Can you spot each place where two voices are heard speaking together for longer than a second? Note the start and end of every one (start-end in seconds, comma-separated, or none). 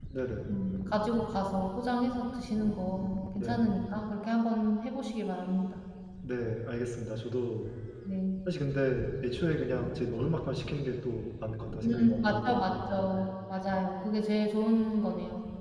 11.8-13.2